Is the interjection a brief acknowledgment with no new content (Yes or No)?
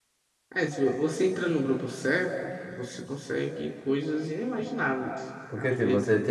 No